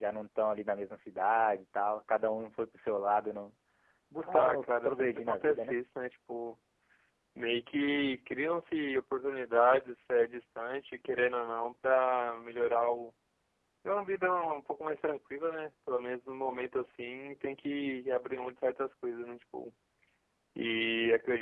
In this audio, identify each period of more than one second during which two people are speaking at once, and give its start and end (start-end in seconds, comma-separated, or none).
4.2-5.8